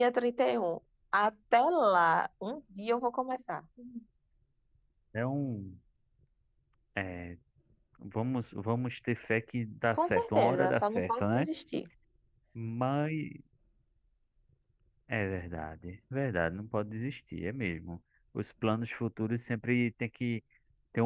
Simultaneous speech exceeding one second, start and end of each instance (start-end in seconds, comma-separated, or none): 10.0-11.5